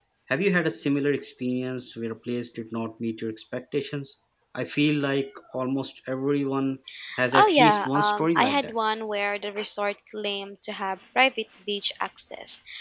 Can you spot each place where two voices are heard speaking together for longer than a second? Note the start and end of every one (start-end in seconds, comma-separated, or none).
7.3-8.7